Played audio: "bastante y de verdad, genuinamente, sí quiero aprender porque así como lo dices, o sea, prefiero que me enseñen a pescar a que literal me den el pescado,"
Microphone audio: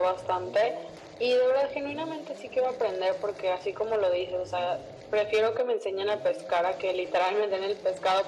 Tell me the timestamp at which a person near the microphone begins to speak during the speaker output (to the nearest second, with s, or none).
none